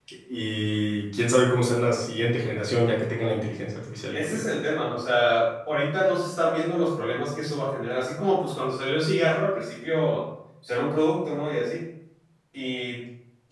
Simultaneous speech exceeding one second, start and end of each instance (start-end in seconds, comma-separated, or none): none